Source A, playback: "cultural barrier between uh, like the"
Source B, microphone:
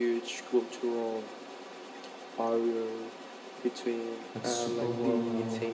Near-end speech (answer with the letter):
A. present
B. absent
A